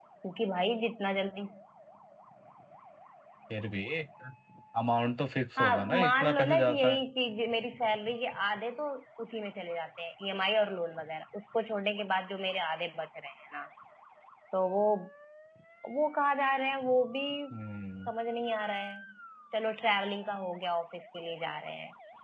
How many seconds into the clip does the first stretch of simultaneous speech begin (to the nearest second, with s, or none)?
6 s